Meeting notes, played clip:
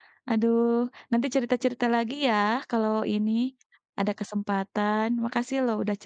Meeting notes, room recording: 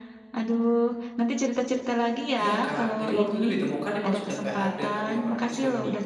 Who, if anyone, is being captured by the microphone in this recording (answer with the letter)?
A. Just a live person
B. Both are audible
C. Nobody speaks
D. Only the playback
B